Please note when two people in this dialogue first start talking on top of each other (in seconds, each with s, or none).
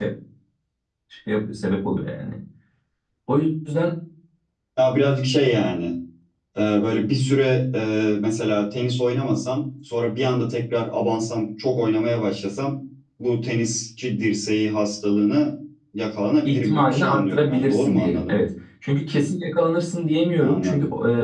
16.4 s